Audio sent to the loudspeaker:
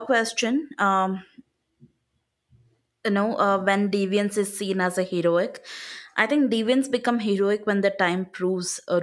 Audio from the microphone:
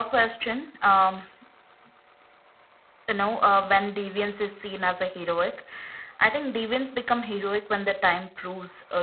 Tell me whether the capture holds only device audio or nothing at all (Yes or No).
Yes